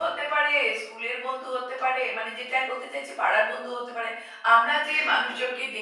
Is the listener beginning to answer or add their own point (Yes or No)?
No